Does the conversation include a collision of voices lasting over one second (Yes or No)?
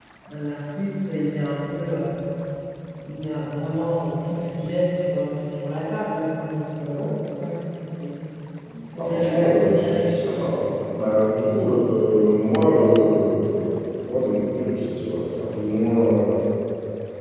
Yes